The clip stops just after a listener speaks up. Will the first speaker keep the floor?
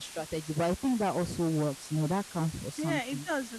No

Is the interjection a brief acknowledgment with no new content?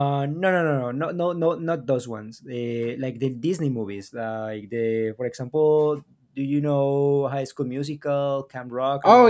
No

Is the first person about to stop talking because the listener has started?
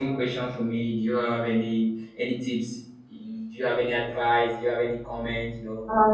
Yes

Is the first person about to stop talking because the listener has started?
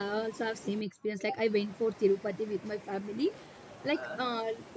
No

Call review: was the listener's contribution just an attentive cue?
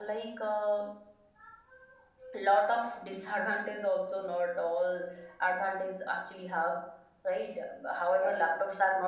Yes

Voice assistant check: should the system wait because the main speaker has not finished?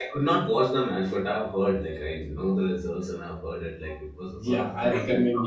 No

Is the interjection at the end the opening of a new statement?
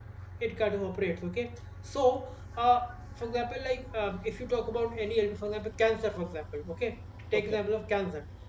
No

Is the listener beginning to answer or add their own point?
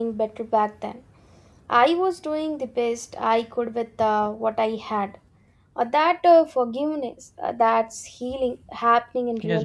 Yes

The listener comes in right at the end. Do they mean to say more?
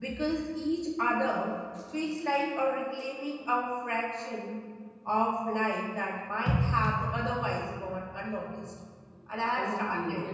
Yes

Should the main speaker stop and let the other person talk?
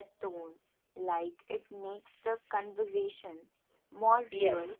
Yes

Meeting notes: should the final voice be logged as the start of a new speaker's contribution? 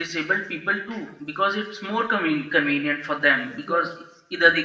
No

